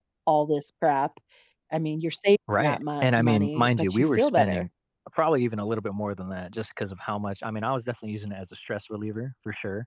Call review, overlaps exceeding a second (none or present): present